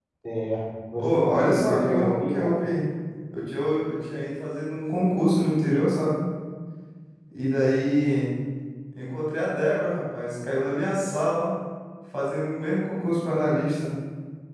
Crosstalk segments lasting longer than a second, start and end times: 1.0-2.5

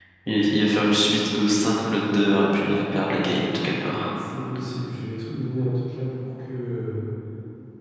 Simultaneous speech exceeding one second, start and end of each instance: none

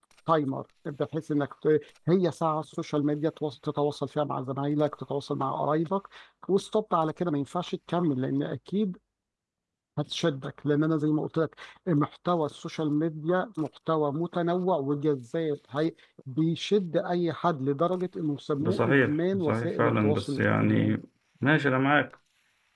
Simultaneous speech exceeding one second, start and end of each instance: 18.6-21.0

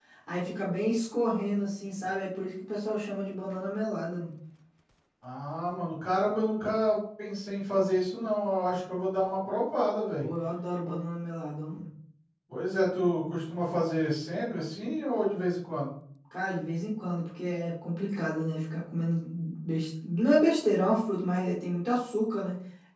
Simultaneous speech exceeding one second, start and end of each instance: none

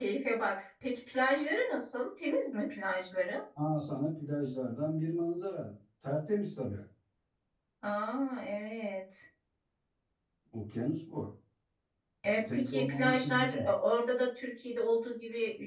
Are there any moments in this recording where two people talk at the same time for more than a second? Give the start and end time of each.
12.5-13.7

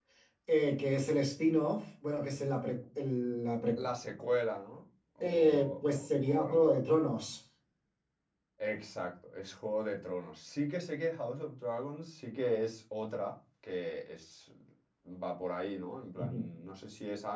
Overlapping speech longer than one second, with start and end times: 5.2-6.7

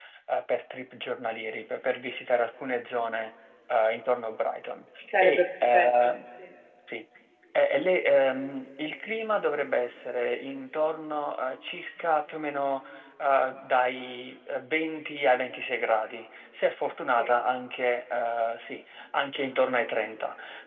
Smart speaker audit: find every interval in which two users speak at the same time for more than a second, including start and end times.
5.0-6.2

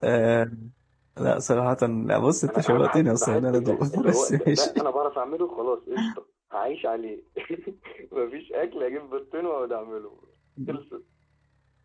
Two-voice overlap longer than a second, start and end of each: 2.5-4.7

